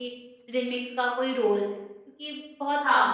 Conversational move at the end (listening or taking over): taking over